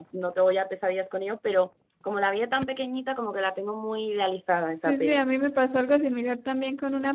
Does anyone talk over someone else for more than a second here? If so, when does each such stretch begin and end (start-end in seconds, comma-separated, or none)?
none